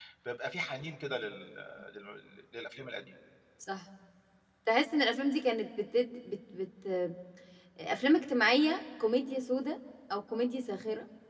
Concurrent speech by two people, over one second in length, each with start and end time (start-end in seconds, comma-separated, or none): none